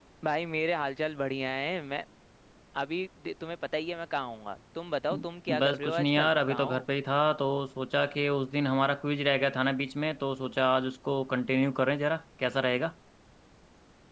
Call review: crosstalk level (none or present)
present